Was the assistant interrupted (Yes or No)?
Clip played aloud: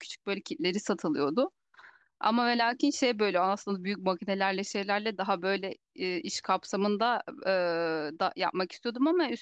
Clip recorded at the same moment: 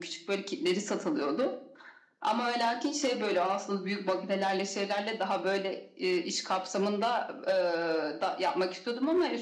No